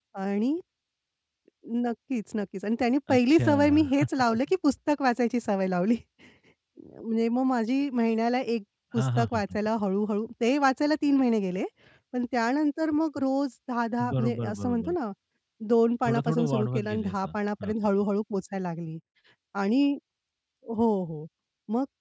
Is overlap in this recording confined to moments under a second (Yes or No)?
No